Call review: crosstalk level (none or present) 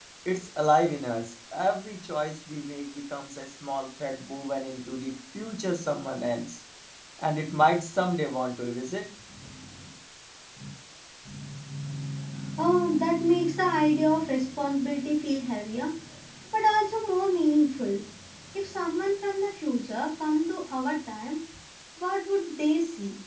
none